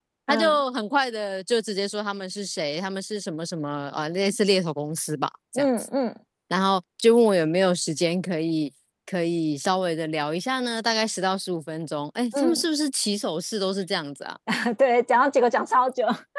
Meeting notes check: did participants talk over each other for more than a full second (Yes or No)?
No